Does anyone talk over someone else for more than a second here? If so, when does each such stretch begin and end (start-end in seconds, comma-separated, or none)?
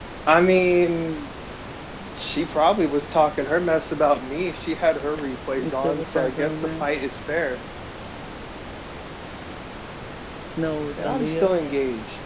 5.6-6.9